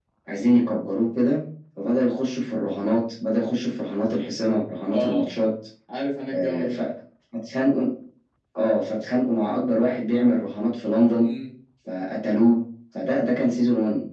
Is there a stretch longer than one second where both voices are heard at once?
No

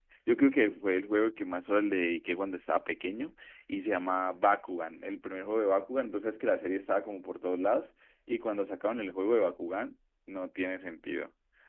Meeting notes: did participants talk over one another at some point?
No

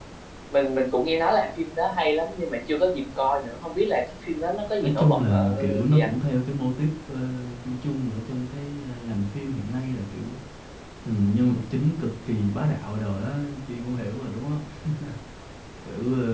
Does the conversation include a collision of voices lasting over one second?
Yes, from 4.8 s

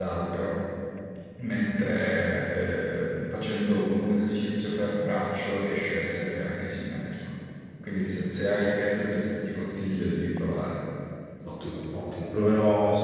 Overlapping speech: No

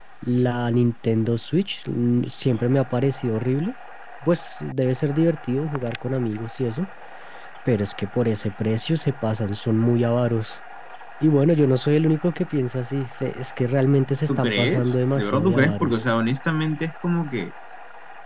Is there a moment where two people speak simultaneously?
Yes, from 14.3 s

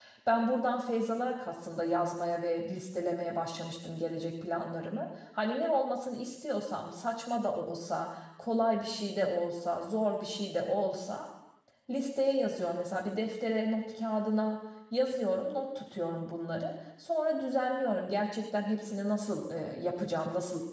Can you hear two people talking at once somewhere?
No

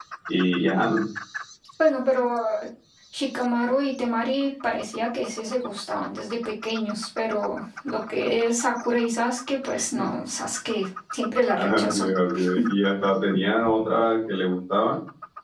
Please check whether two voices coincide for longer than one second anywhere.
No

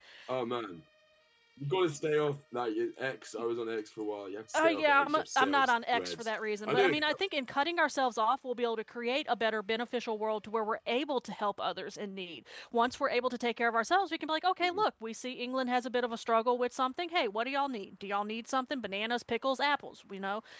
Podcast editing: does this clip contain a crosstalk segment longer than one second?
Yes, from 4.5 s

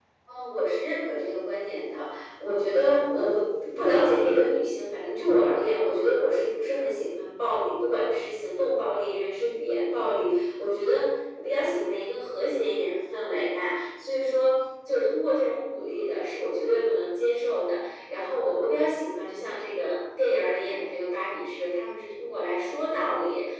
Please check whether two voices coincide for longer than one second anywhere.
No

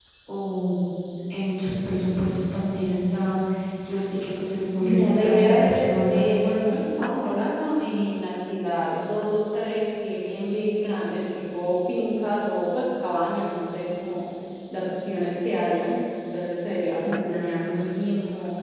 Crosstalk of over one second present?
Yes, from 4.8 s

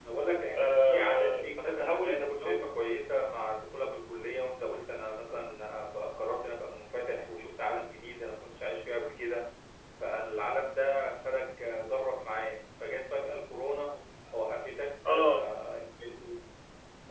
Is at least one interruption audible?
Yes, from 0.6 s

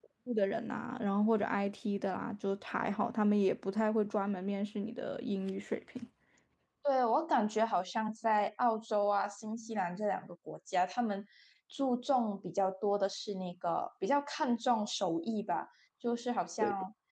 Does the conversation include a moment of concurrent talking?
No

